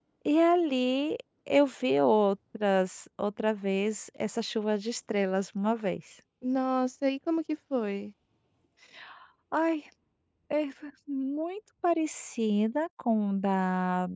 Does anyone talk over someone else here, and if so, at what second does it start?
none

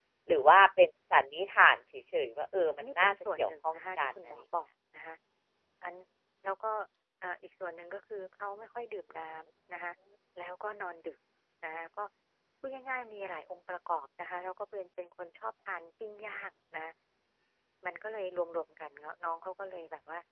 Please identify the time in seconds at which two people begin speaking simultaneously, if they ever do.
3 s

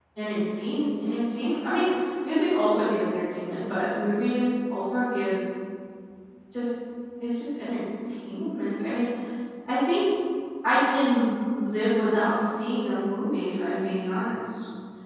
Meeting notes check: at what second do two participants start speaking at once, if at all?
none

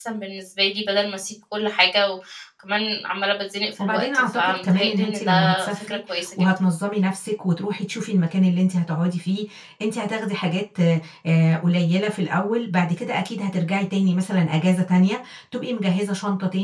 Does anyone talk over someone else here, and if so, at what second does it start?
4 s

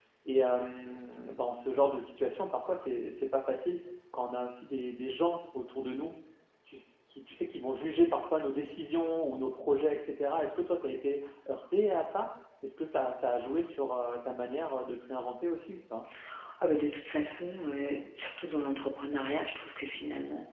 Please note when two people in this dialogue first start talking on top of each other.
none

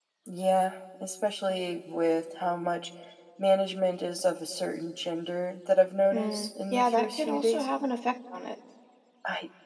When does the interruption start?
6 s

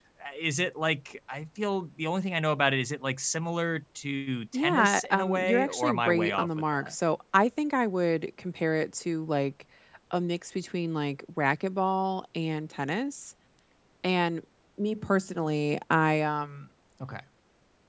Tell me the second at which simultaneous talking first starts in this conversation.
5 s

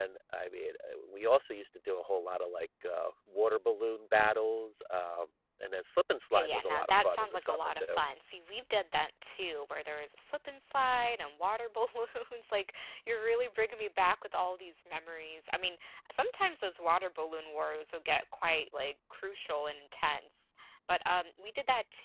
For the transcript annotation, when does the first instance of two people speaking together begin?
6 s

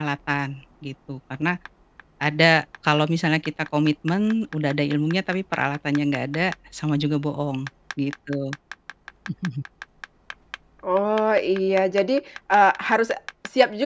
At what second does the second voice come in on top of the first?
none

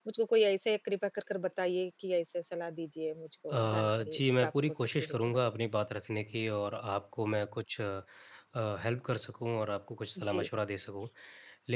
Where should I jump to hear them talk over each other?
4 s

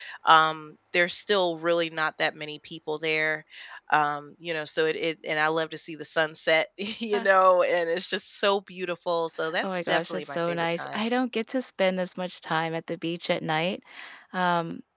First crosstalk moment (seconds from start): 10 s

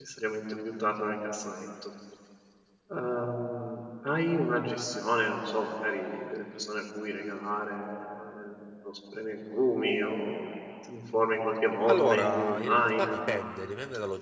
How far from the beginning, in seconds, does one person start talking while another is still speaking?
12 s

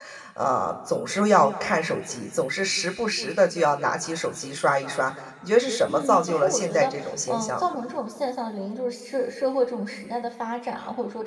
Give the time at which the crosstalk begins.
6 s

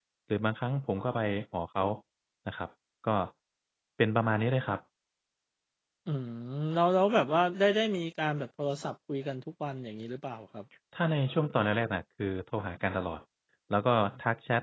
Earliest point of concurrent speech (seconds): none

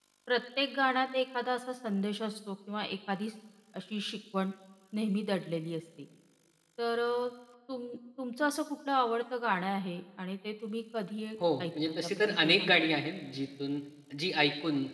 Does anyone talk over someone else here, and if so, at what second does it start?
11 s

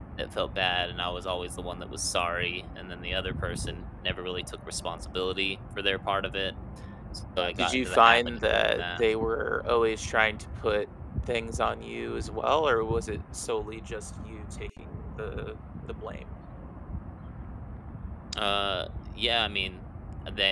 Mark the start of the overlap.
8 s

